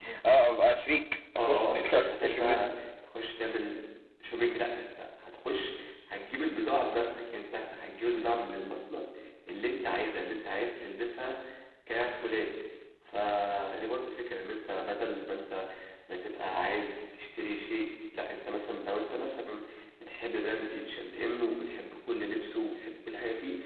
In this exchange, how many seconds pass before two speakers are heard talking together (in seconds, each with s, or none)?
1.4 s